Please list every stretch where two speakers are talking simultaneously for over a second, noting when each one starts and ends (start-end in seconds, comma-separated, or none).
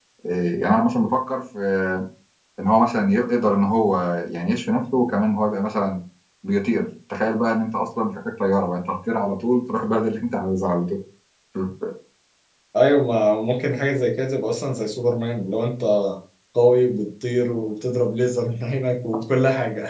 none